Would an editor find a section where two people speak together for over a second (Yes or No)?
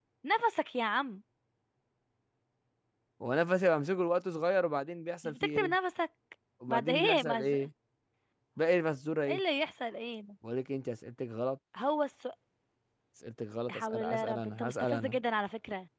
Yes